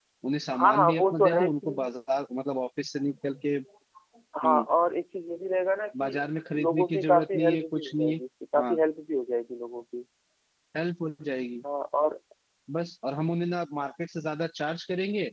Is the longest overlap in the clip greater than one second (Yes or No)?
Yes